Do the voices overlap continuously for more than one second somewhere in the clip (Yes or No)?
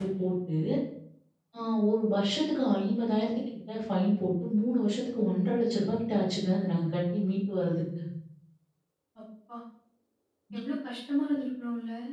No